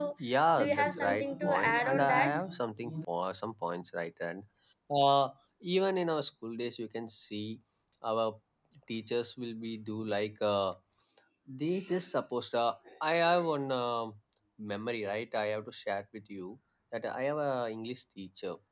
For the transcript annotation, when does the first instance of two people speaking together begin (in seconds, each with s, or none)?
0.6 s